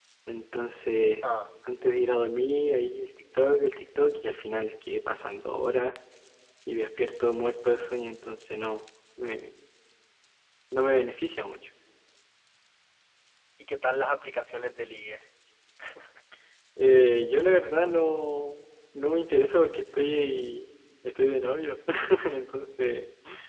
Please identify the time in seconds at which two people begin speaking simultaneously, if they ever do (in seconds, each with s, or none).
none